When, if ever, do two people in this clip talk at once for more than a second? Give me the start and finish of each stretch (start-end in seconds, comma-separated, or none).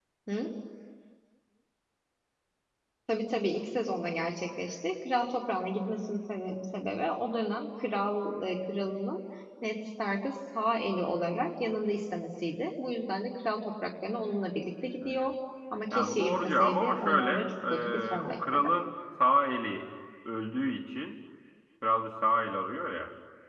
15.9-18.7